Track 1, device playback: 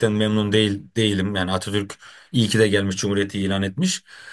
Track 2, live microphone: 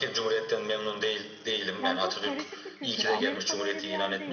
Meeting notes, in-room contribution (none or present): present